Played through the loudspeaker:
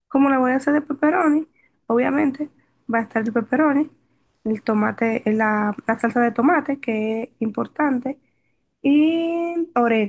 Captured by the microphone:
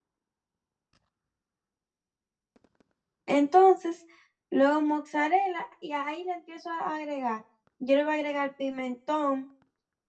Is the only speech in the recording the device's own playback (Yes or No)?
No